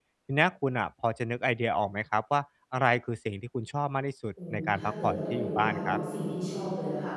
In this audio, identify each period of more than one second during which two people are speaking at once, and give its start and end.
4.5-6.0

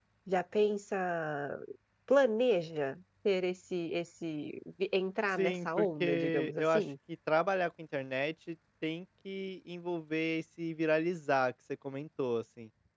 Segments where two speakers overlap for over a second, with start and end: 5.4-6.8

